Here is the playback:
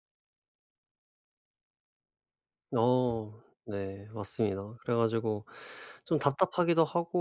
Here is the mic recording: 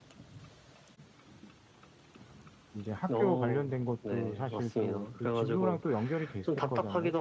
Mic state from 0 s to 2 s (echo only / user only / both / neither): neither